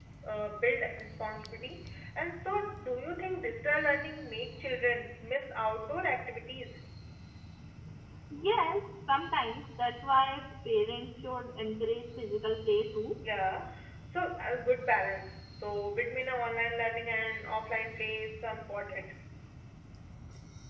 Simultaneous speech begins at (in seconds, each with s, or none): none